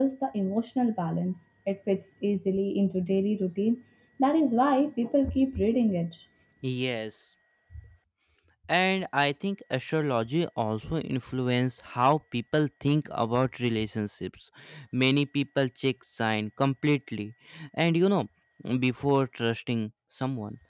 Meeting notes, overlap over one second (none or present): none